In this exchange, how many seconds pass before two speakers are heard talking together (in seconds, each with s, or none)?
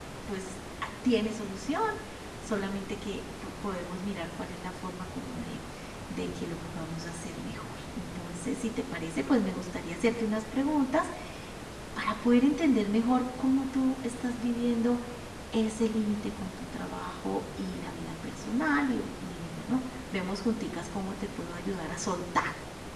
none